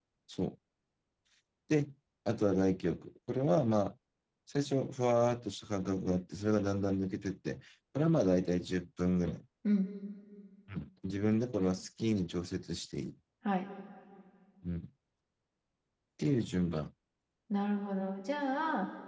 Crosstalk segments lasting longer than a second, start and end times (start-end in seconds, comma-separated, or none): none